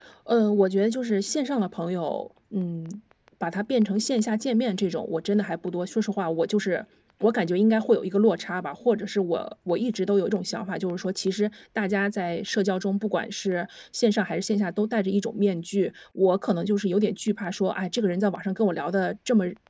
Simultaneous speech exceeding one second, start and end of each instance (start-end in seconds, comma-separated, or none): none